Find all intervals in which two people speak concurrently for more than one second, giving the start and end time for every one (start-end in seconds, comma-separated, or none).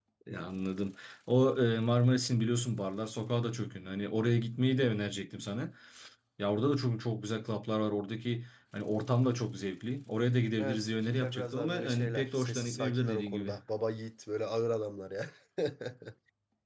10.6-13.5